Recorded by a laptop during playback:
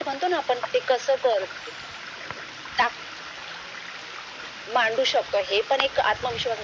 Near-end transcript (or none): none